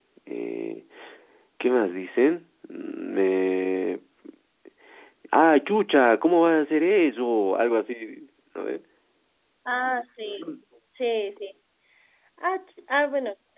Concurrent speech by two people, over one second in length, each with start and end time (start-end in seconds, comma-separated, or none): none